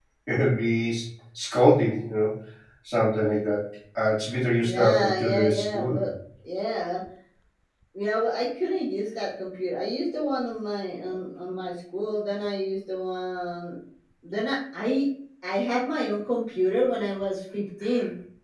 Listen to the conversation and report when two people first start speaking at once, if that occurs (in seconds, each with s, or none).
4.6 s